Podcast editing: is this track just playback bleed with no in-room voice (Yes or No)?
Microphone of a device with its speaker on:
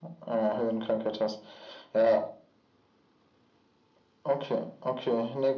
Yes